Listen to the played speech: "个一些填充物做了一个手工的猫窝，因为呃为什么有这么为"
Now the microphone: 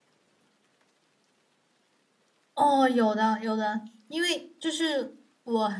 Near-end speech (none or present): present